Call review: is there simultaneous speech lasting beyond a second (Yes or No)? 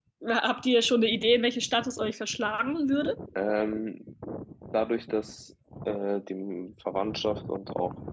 No